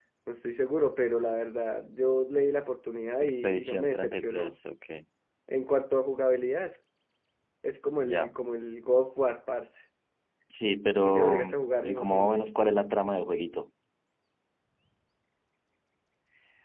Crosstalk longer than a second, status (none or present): present